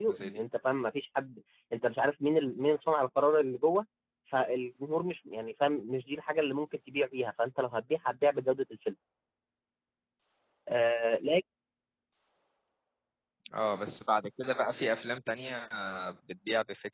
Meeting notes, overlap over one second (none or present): none